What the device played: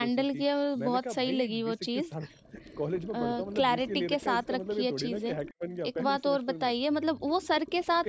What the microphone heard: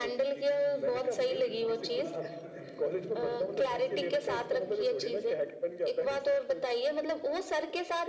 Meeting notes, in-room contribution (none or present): present